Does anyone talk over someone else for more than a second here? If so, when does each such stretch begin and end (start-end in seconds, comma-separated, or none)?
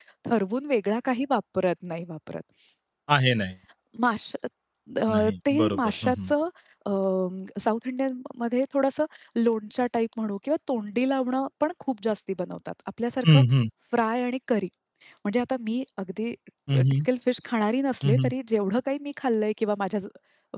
5.1-6.3